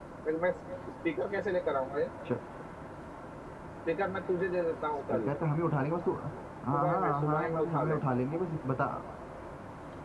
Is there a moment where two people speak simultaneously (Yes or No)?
Yes